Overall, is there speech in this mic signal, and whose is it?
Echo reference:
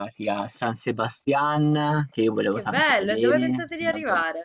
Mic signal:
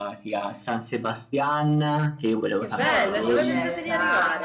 both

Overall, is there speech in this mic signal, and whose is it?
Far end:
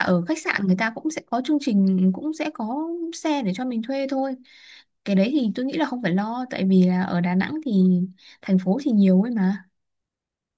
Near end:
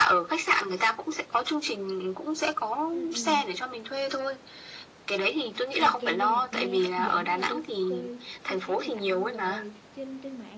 both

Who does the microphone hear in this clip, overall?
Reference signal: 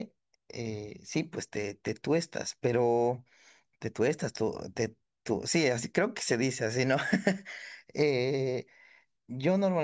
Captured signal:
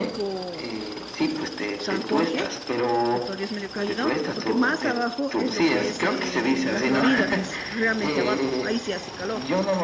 both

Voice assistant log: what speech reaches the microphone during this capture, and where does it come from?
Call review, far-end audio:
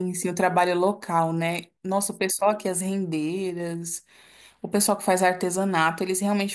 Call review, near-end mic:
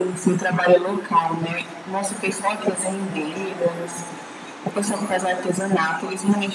echo only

